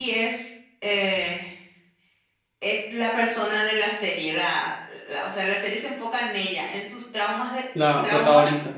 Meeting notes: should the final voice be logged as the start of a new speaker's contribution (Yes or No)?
No